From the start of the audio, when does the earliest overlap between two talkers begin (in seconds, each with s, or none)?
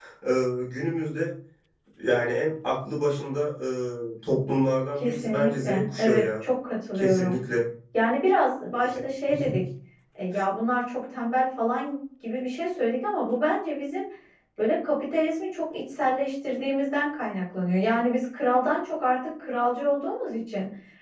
5.0 s